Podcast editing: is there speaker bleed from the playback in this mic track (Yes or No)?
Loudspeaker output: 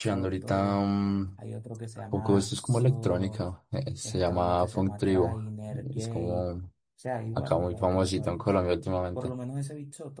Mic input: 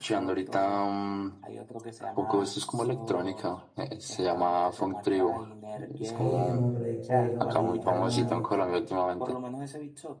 Yes